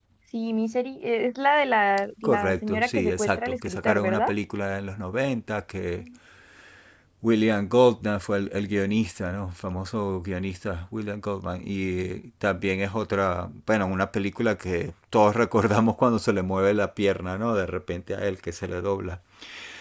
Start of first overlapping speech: 2.2 s

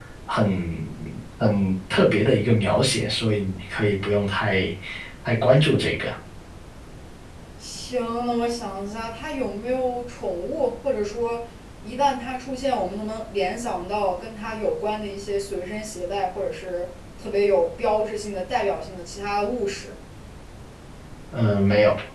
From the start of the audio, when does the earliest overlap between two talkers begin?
none

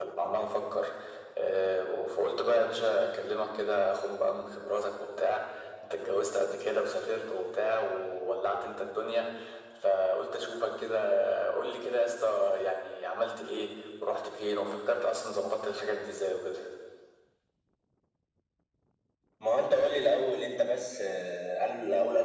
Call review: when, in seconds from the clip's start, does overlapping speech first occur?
none

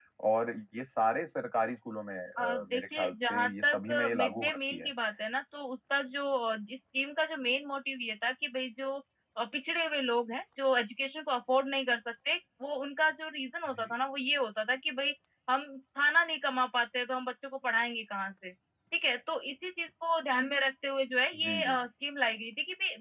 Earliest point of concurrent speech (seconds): 2.4 s

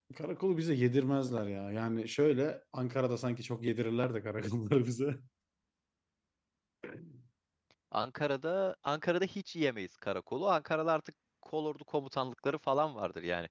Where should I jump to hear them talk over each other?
none

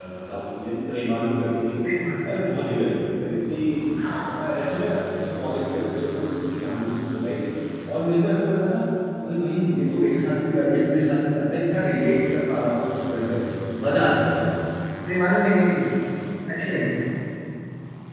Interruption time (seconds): none

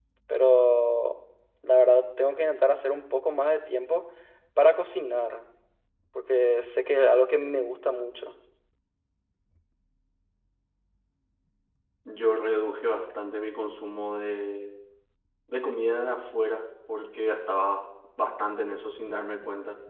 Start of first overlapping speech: none

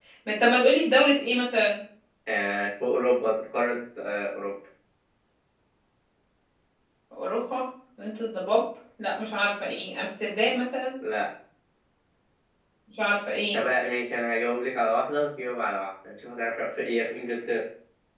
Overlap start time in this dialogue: none

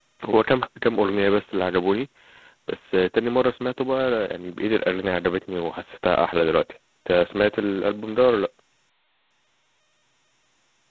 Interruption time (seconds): none

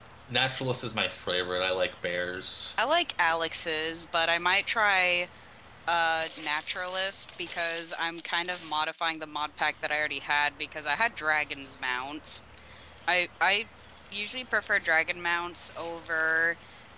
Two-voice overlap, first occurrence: none

